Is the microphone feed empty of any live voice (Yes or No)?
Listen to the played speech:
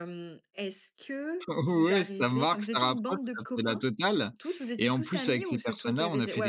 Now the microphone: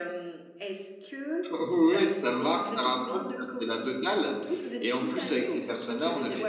Yes